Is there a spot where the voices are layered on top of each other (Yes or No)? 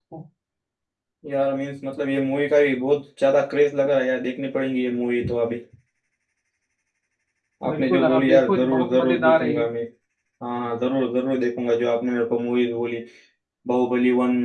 Yes